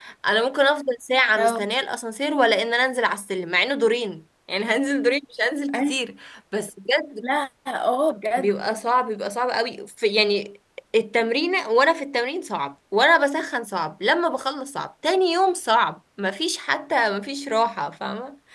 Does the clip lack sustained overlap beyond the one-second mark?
Yes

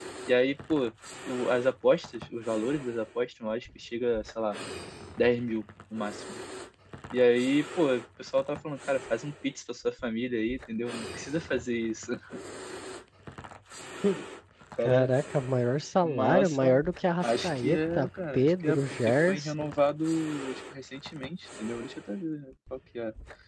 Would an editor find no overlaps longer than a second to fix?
No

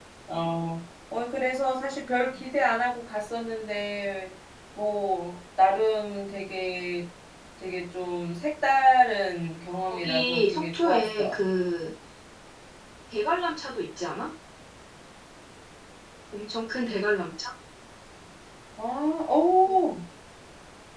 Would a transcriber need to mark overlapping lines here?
Yes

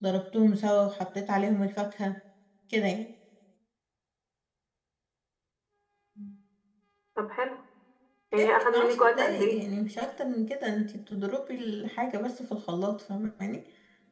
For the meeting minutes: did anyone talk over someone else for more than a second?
Yes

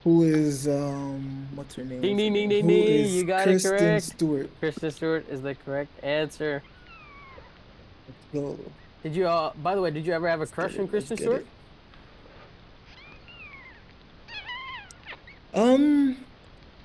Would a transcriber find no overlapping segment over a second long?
No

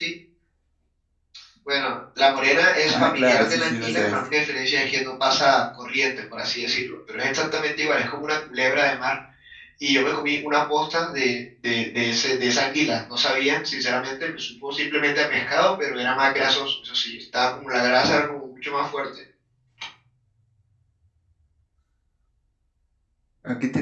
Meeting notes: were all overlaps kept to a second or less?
No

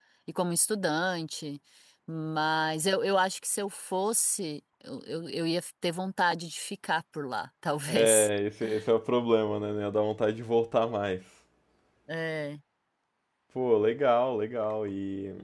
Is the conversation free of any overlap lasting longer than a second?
Yes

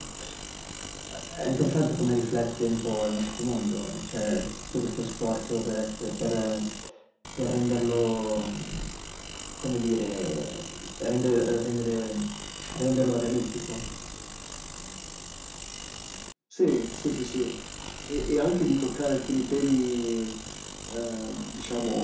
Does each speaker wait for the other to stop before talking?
Yes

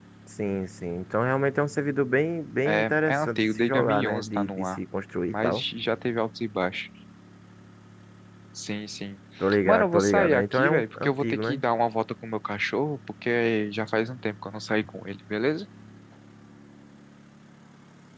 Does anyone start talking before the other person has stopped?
Yes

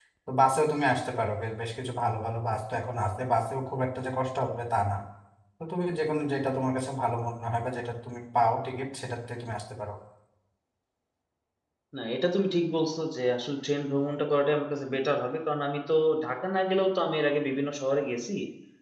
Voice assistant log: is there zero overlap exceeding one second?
Yes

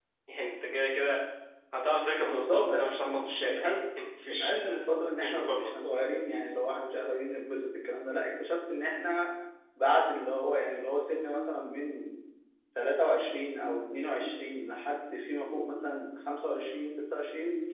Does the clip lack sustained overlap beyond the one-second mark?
No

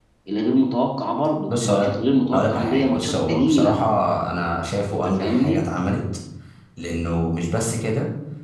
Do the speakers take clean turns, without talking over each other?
No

